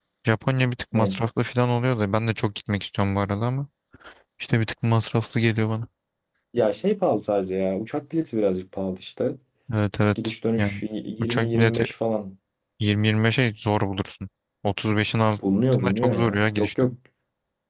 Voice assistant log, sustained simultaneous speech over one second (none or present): present